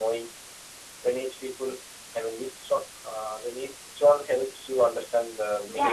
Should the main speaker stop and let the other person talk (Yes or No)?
Yes